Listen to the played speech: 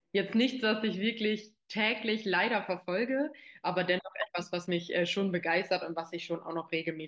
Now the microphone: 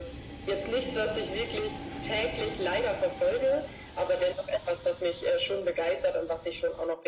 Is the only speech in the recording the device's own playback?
Yes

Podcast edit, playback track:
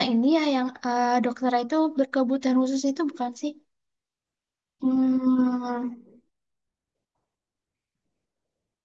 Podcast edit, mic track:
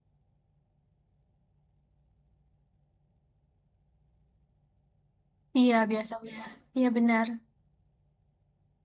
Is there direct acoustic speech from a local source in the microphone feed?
Yes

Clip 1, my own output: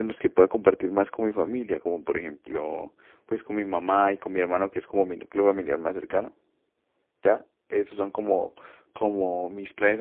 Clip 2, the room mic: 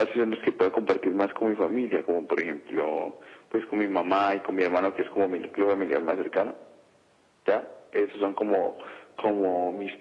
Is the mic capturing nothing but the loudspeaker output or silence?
Yes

